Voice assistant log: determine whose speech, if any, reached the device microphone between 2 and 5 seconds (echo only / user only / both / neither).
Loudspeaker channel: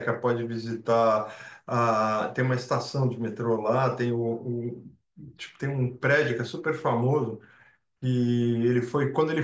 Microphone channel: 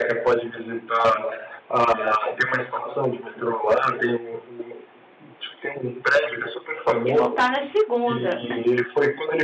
echo only